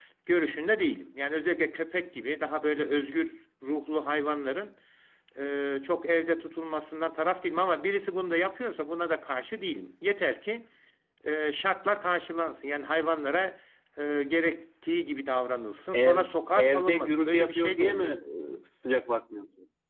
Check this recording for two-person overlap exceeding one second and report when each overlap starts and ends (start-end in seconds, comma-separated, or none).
15.9-18.0